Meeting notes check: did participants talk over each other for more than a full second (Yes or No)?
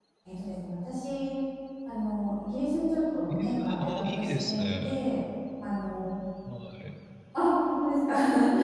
Yes